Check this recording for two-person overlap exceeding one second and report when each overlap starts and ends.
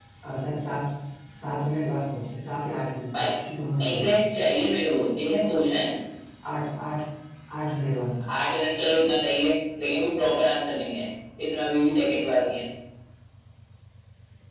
none

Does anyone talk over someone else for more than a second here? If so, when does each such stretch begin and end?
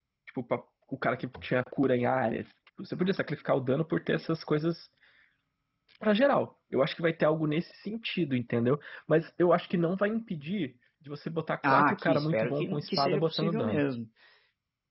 11.7-13.8

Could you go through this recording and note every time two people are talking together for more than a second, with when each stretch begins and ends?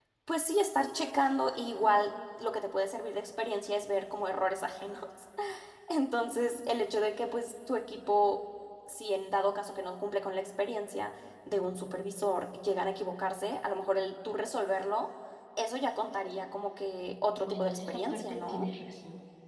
17.5-18.7

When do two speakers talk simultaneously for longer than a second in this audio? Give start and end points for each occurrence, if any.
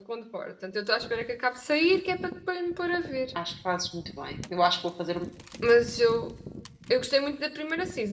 none

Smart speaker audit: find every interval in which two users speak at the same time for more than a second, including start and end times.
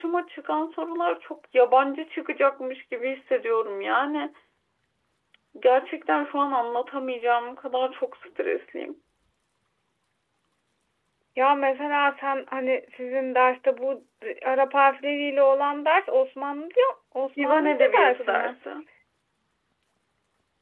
17.4-18.6

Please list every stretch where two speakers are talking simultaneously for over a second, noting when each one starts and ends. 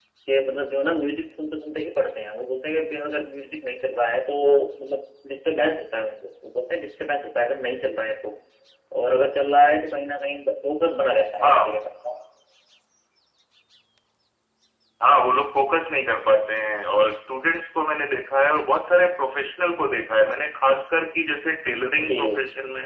none

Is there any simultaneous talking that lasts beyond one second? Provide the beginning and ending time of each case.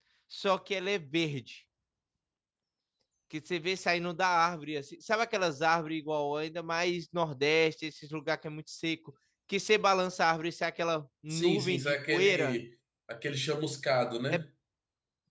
11.3-12.6

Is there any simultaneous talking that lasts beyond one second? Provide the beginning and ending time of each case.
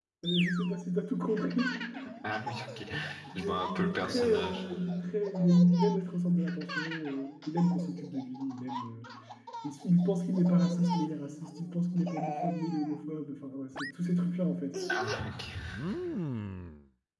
3.4-4.6

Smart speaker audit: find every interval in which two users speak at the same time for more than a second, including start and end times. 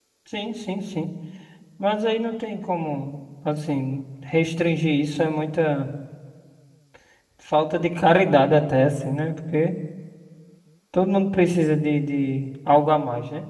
none

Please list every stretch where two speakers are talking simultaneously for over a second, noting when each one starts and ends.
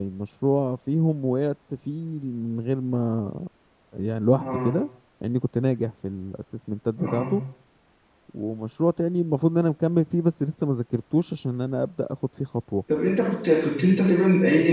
none

